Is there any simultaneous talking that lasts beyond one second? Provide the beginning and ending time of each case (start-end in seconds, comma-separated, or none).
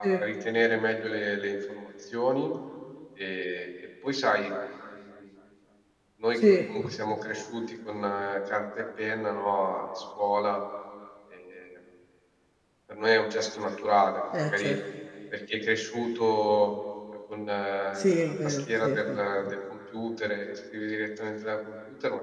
18.0-19.2